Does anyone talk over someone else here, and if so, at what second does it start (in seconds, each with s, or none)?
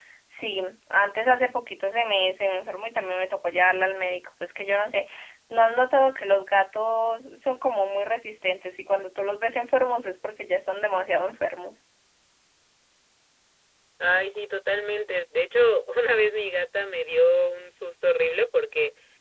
none